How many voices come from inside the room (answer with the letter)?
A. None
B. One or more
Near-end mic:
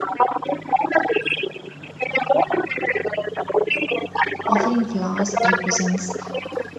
B